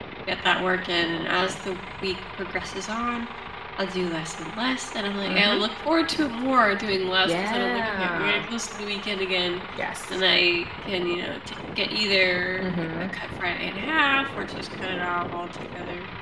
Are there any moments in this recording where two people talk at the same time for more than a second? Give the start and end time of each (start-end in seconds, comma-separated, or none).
7.2-8.4